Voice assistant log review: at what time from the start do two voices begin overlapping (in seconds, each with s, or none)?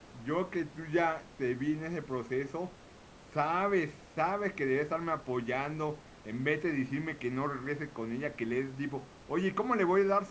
none